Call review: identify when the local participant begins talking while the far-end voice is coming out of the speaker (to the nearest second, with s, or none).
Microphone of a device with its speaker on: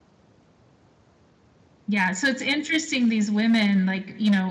2 s